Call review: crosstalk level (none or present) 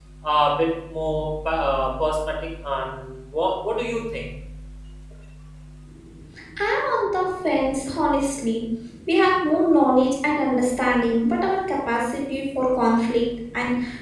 none